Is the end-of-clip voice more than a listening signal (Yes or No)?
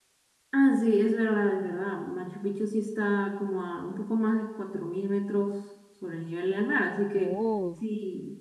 No